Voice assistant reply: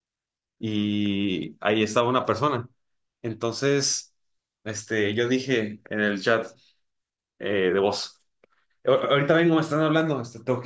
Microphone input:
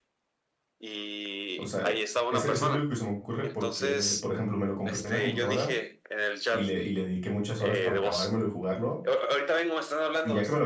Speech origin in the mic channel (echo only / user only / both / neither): both